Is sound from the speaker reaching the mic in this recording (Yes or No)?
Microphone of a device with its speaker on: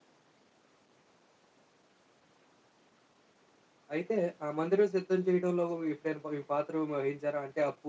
No